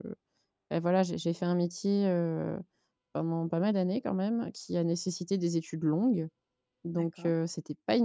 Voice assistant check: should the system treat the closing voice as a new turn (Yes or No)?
No